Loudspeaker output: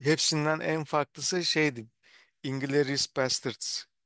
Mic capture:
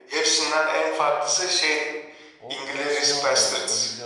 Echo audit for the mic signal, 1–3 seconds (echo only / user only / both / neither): both